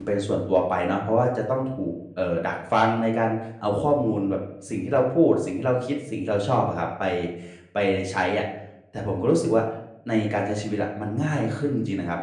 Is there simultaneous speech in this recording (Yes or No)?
No